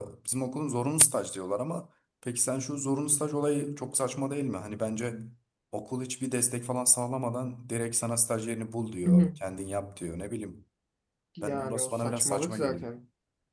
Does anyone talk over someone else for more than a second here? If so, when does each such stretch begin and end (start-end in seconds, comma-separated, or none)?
11.4-12.9